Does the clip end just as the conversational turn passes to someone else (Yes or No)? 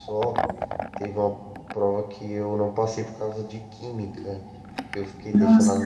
No